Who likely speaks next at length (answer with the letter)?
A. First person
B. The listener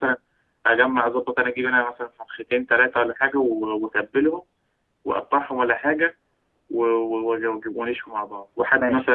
A